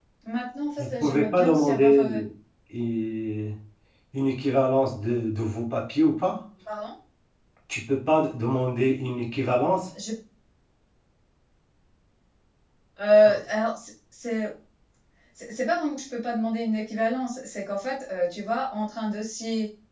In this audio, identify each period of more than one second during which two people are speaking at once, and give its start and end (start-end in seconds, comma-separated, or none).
0.8-2.2